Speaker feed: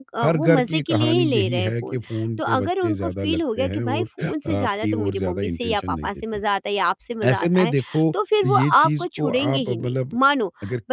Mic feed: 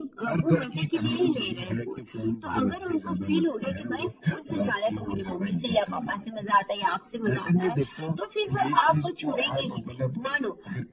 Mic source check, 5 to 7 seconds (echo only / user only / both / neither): echo only